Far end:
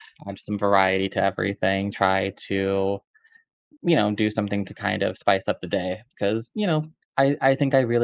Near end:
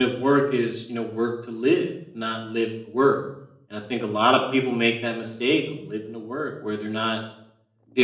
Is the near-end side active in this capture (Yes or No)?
Yes